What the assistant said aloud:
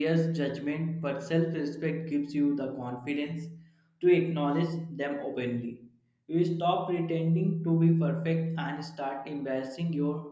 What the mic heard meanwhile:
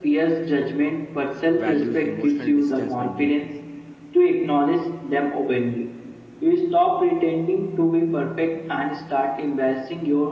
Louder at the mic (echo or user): echo